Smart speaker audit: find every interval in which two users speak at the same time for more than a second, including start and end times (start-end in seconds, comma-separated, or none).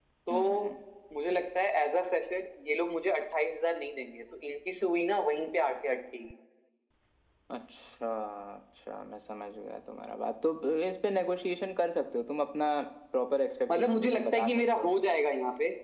13.7-14.9